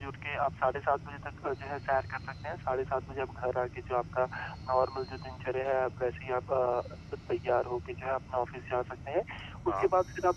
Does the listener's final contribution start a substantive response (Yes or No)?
No